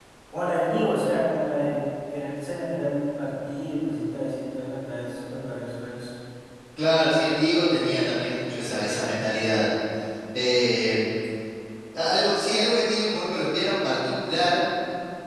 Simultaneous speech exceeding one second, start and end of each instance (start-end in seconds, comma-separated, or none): none